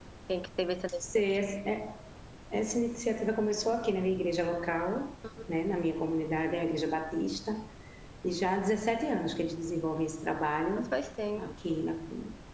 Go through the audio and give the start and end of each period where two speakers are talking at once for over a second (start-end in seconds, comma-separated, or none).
none